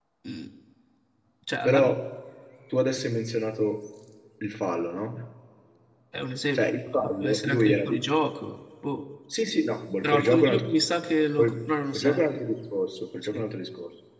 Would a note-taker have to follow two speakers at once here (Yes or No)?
Yes